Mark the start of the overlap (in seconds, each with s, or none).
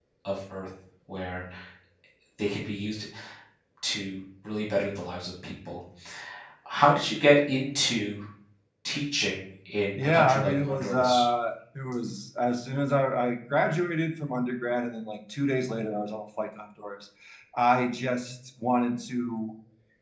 9.9 s